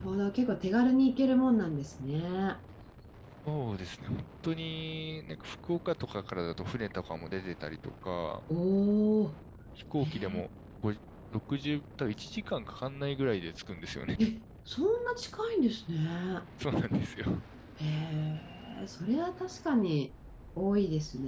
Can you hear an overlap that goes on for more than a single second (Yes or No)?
No